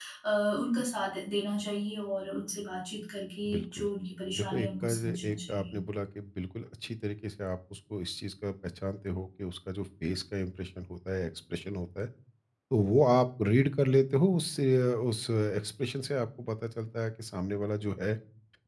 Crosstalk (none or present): present